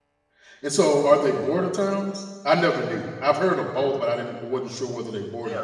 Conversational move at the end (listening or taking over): taking over